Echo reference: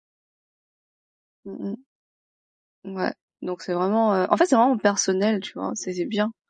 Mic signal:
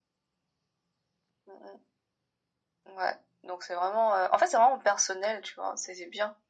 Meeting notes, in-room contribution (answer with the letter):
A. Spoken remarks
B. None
B